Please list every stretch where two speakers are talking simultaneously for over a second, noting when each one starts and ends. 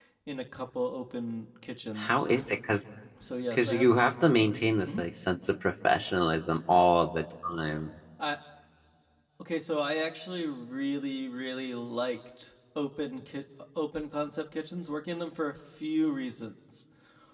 none

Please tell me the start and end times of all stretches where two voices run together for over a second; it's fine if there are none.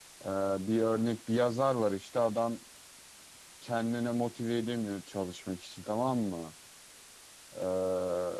none

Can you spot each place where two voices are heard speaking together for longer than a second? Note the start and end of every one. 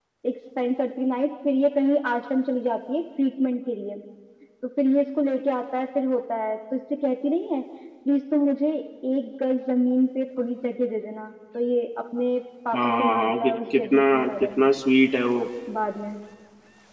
12.8-14.6

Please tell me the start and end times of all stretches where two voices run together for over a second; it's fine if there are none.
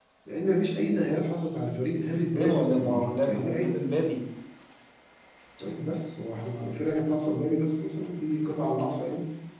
2.3-3.8

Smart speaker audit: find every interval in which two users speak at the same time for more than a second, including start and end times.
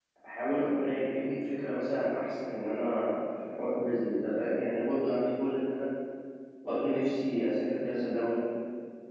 none

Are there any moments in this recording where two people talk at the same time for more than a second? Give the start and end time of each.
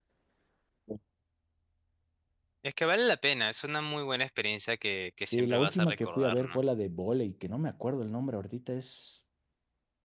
5.2-6.6

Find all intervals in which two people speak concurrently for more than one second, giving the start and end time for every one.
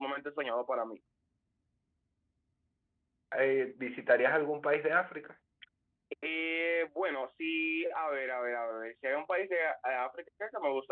none

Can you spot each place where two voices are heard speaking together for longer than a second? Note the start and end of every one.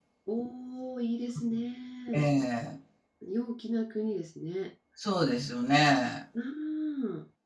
none

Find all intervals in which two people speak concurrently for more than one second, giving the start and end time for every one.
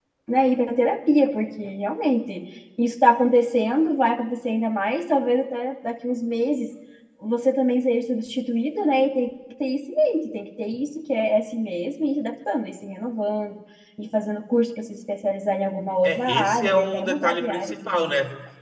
16.0-18.1

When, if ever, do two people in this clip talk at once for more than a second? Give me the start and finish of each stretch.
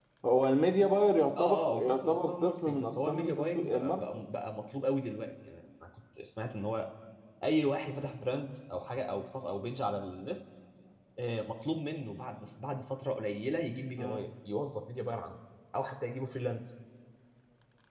1.4-4.3

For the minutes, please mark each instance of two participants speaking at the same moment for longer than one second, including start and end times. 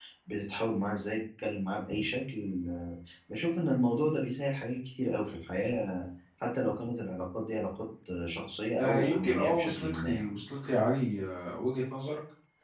8.8-10.4

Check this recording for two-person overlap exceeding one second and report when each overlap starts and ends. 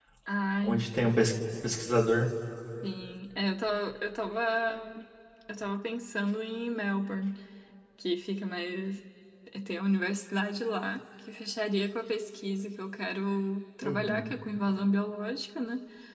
none

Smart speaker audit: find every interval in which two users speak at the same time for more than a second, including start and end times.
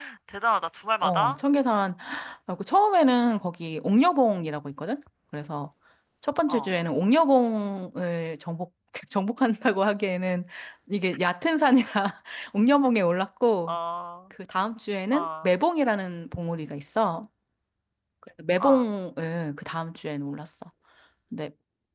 none

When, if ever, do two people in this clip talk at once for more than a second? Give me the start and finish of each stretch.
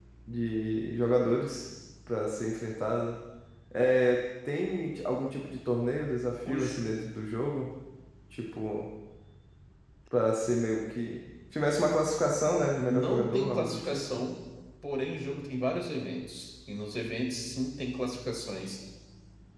12.9-14.1

